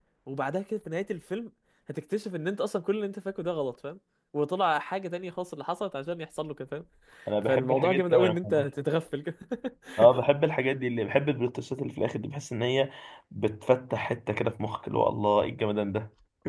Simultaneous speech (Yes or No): Yes